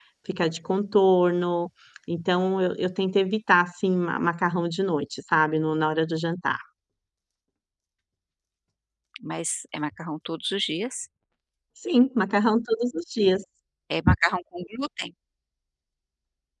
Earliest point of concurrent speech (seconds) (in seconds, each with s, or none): none